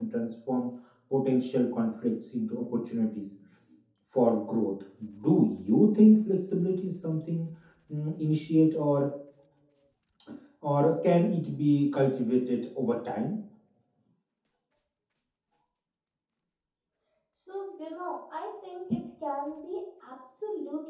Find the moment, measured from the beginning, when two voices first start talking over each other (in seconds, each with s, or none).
none